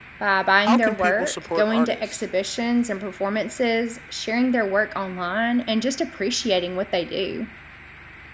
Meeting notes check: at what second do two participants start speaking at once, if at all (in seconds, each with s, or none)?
0.6 s